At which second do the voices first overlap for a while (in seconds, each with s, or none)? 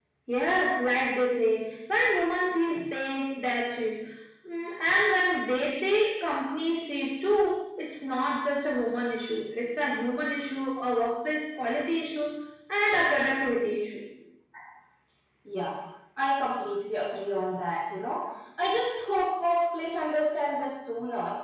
none